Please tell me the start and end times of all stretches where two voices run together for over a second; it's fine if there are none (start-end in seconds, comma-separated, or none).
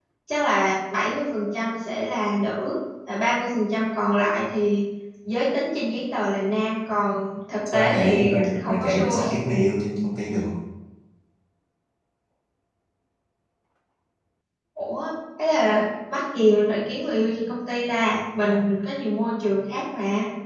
7.7-9.2